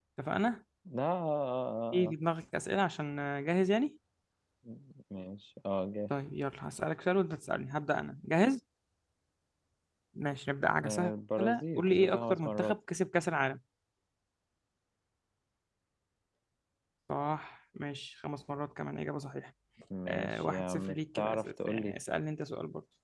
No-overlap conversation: No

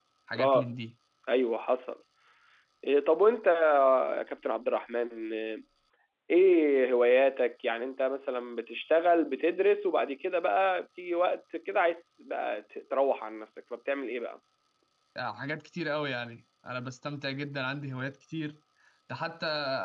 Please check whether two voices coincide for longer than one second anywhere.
No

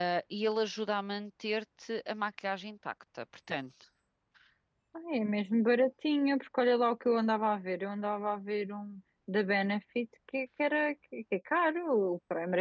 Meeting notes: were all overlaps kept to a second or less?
Yes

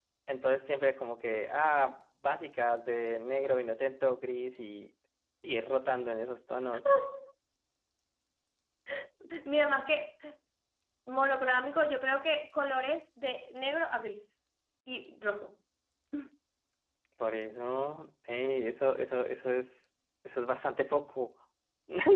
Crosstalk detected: No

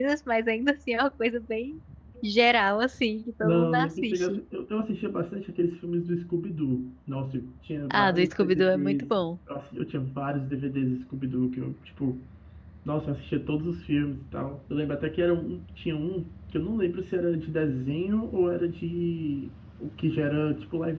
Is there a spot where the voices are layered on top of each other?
Yes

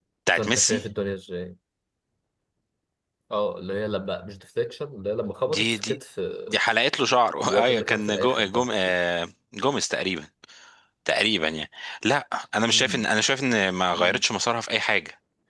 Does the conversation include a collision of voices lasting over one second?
Yes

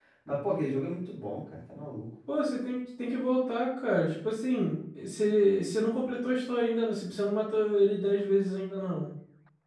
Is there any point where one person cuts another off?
No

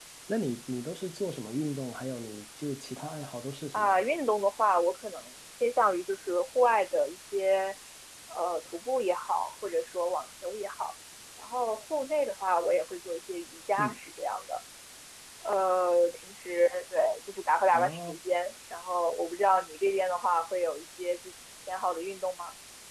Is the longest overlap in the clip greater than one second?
No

